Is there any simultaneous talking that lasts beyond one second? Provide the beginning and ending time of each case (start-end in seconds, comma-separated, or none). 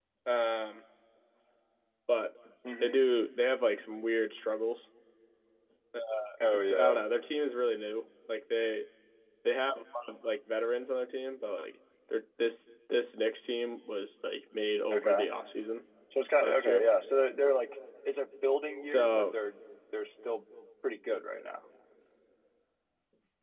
none